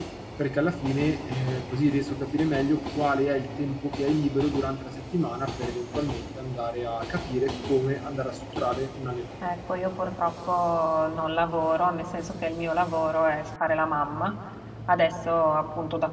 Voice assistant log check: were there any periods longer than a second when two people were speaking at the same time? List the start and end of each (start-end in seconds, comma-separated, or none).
none